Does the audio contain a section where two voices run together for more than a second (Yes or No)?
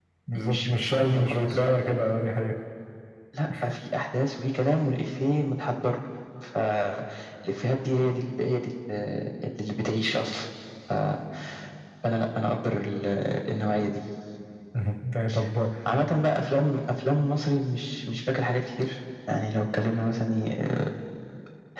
Yes